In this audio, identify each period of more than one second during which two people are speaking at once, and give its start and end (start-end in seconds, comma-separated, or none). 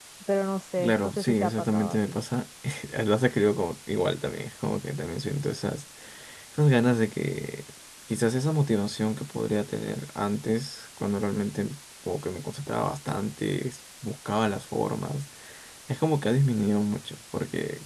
0.8-2.2